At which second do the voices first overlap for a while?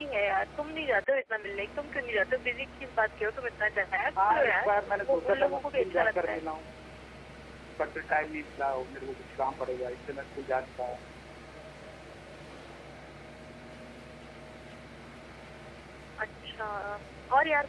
4.2 s

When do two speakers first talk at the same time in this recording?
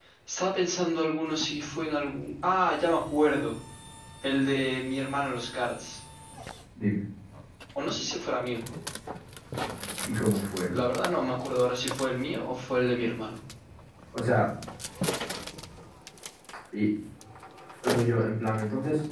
none

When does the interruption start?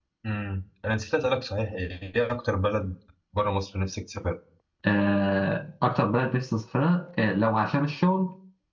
none

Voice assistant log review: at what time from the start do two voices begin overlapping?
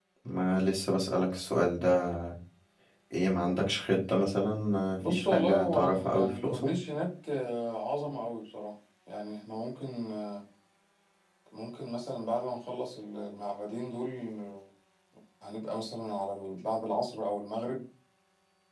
5.0 s

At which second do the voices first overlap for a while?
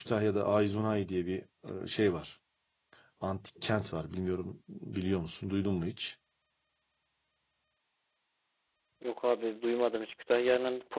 none

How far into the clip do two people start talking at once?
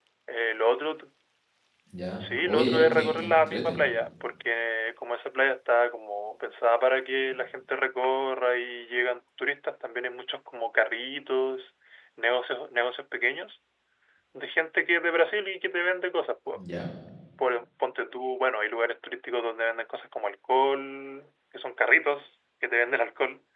2.2 s

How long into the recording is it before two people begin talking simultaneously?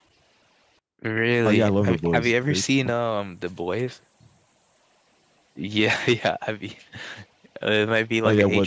1.4 s

